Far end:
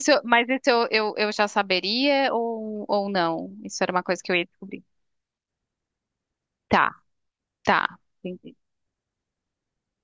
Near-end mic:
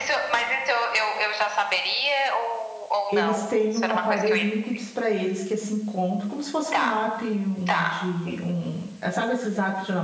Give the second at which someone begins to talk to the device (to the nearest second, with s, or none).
3 s